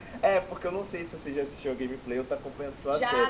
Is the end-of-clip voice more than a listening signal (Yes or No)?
Yes